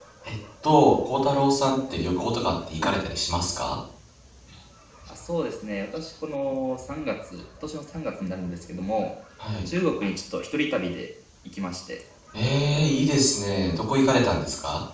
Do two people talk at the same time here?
No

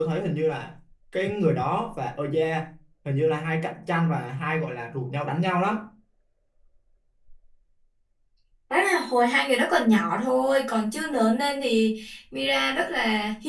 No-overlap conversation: Yes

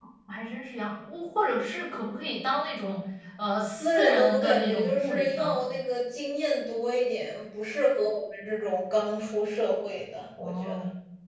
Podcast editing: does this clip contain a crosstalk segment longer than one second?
Yes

